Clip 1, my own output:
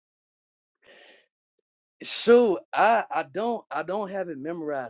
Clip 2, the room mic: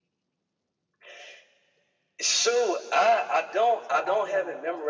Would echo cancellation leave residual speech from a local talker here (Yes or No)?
Yes